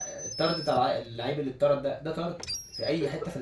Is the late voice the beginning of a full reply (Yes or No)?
Yes